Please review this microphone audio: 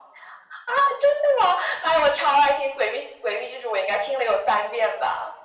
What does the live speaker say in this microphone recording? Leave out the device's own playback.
none

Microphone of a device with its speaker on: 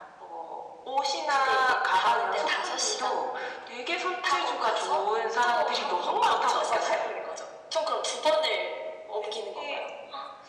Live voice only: none

